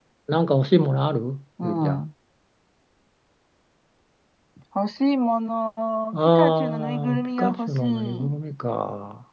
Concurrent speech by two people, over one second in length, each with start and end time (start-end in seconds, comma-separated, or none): 6.1-8.4